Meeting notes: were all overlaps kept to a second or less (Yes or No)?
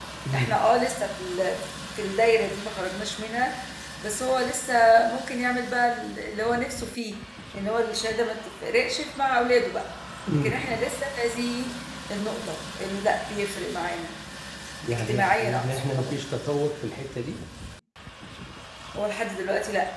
No